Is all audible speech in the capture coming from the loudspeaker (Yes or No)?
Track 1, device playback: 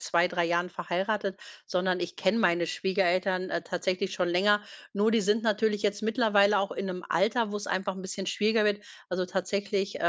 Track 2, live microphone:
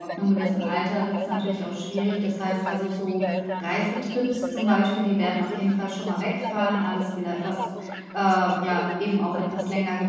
No